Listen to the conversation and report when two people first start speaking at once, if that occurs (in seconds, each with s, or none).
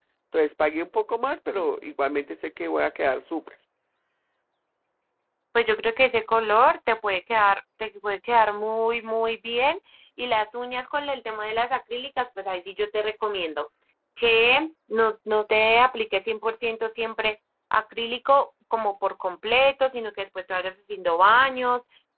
none